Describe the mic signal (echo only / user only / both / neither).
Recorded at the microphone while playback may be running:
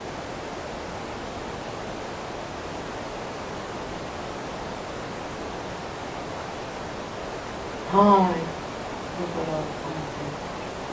user only